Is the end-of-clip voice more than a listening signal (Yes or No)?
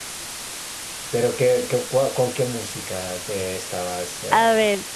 Yes